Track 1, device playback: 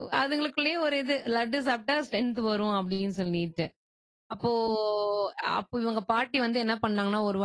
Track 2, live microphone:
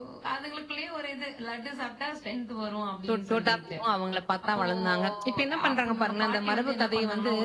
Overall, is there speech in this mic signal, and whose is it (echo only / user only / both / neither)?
both